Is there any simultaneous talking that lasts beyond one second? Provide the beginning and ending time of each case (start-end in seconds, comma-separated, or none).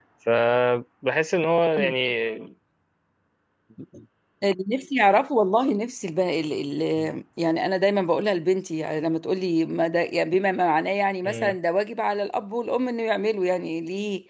none